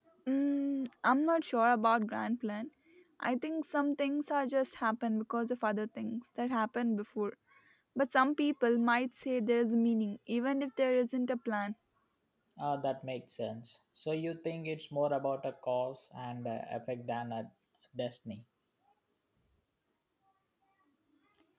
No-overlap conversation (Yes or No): Yes